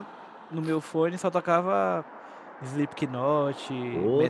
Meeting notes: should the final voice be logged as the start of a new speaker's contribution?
Yes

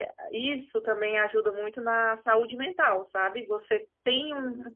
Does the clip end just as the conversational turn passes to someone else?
No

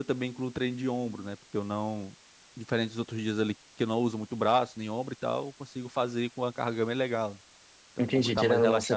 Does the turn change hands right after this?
Yes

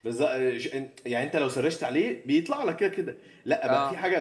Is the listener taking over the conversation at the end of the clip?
No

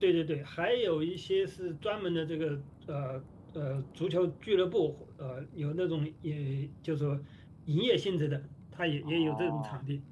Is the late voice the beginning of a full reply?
Yes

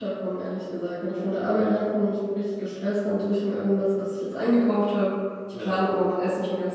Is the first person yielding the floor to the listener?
No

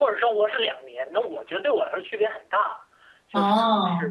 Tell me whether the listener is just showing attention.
Yes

